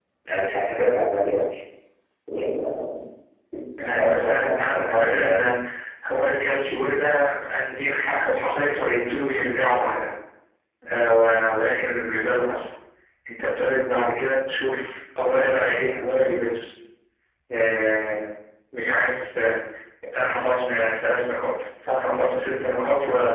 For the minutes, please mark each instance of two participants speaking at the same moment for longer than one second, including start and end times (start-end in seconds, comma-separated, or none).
4.0-5.5